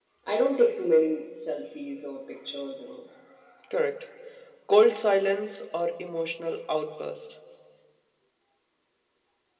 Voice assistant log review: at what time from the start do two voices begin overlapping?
none

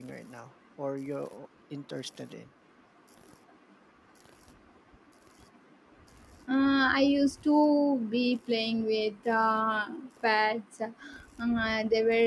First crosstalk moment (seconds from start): none

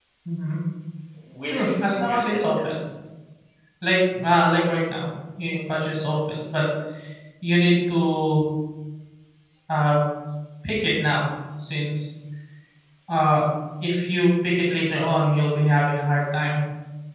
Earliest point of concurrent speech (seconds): 1.5 s

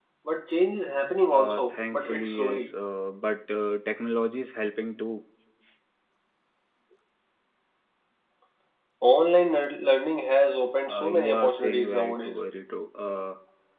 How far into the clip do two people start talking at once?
1.3 s

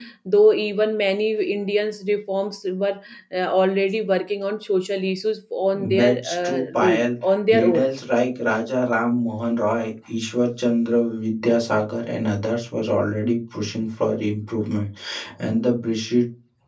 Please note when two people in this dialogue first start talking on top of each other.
5.7 s

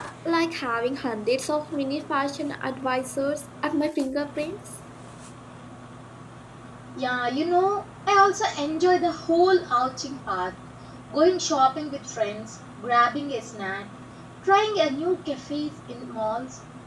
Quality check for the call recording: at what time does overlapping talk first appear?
none

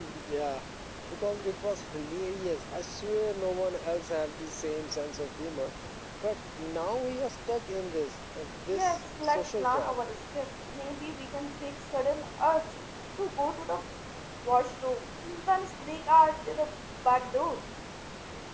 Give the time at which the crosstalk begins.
8.7 s

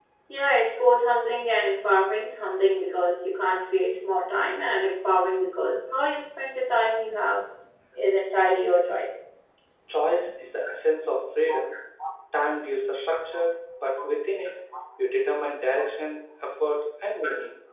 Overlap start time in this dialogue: none

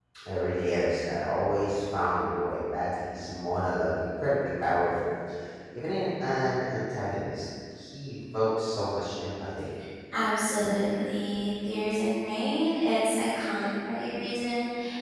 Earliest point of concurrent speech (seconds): none

